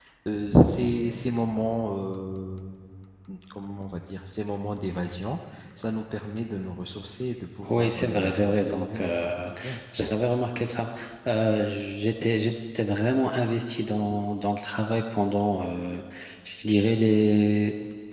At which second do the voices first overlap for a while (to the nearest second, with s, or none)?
8 s